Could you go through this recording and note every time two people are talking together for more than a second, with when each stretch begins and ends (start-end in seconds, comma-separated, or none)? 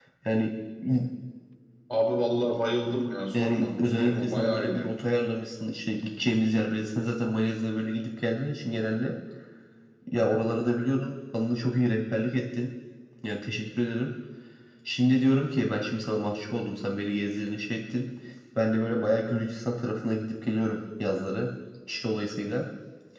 3.4-4.8